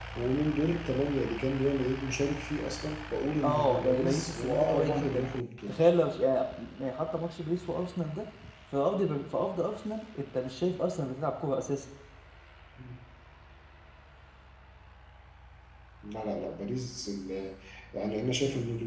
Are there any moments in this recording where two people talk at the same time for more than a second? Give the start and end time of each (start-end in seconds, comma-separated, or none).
3.4-5.3